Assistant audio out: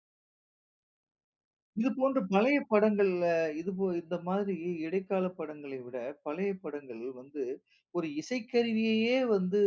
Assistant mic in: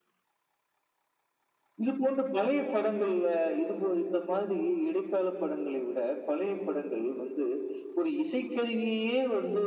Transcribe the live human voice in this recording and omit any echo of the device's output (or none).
none